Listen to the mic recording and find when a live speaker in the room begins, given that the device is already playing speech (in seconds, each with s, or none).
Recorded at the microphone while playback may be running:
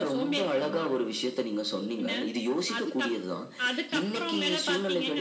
none